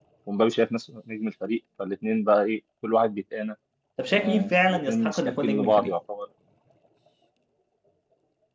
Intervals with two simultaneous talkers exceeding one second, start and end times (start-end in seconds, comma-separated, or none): 4.1-5.9